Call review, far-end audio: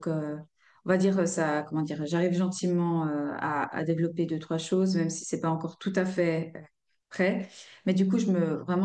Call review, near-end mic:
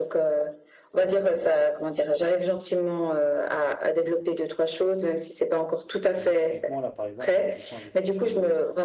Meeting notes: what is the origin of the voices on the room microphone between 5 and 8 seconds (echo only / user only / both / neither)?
both